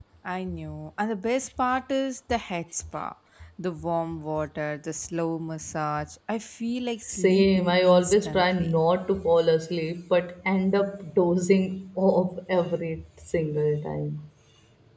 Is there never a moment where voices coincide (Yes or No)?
No